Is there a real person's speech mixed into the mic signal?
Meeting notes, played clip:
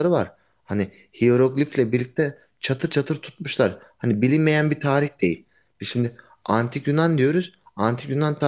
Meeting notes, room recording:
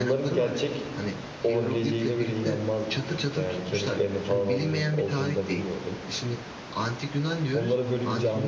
Yes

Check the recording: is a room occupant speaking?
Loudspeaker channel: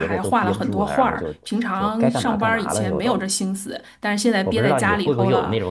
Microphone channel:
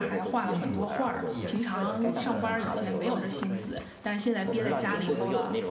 Yes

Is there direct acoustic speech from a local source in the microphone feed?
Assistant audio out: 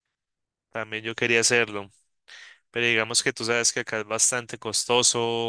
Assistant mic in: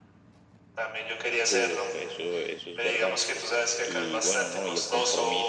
Yes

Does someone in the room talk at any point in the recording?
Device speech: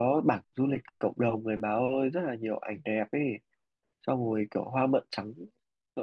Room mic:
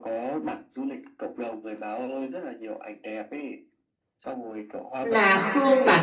Yes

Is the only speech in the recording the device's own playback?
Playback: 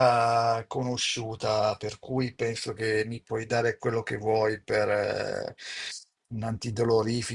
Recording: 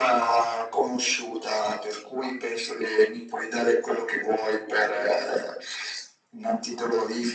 Yes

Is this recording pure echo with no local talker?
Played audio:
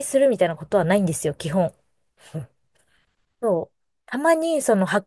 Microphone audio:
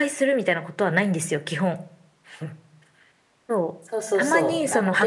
No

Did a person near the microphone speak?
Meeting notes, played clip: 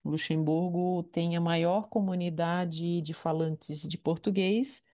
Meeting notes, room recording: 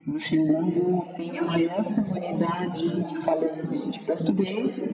Yes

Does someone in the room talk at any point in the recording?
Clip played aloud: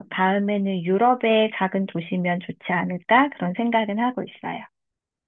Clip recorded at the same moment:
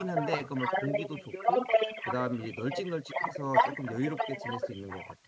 Yes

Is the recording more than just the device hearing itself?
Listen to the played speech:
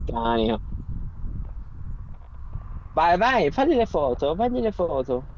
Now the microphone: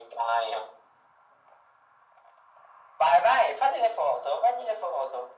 No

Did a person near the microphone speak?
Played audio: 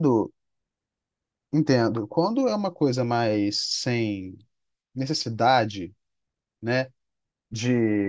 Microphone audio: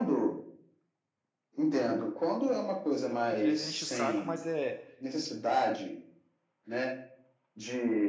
Yes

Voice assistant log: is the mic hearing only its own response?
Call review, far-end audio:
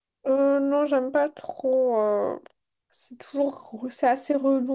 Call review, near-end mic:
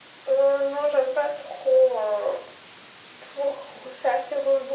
Yes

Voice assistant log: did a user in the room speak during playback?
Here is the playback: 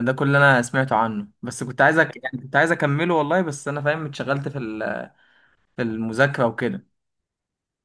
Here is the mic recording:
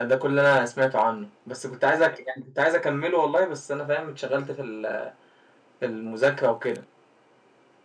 No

